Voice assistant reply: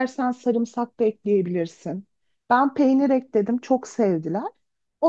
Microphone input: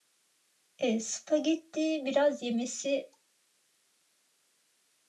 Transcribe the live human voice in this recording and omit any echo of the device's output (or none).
E, spagetti biraz yemesi